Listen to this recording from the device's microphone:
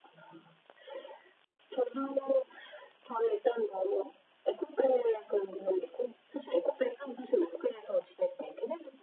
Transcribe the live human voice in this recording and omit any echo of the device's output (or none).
none